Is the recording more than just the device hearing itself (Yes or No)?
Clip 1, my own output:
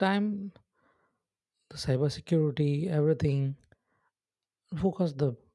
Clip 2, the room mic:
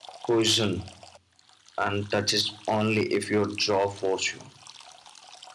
Yes